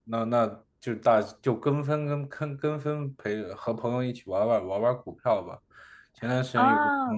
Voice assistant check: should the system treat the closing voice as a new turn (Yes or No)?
No